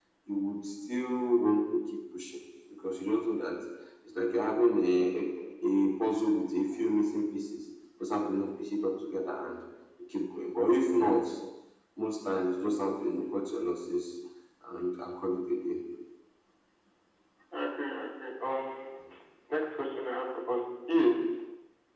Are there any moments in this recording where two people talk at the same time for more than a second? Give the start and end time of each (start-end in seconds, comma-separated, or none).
none